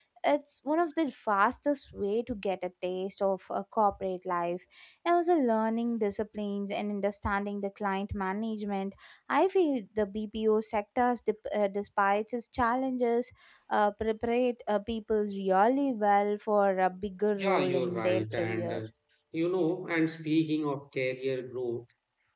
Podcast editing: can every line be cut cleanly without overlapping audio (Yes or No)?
No